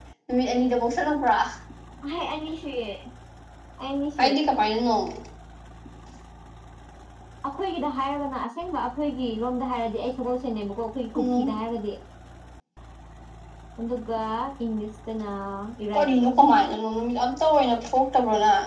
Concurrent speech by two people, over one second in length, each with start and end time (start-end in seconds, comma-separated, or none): none